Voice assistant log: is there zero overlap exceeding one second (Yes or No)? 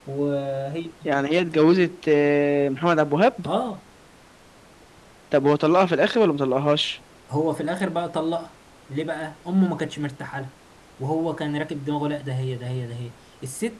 Yes